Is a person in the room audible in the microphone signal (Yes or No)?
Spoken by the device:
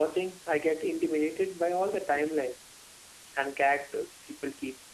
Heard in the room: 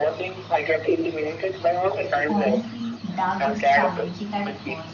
Yes